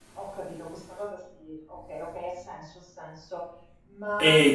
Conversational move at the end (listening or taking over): taking over